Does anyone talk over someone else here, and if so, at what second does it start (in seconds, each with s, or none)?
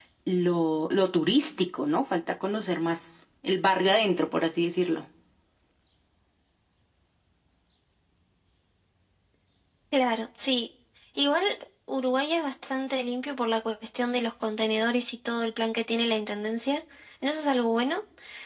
none